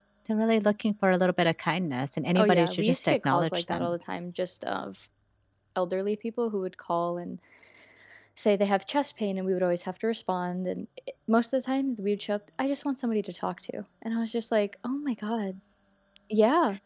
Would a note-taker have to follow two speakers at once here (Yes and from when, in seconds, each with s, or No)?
Yes, from 2.4 s